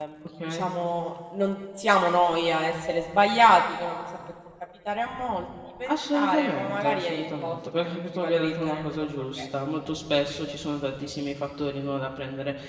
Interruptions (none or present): present